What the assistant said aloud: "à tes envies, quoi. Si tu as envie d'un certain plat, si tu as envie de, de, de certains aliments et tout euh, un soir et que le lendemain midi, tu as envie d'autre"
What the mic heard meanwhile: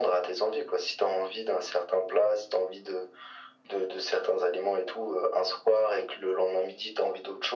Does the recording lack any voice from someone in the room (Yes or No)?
Yes